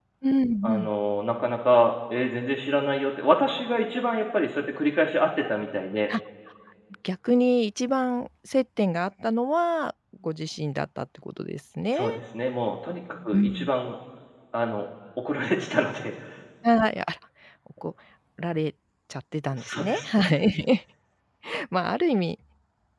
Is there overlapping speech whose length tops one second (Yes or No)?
No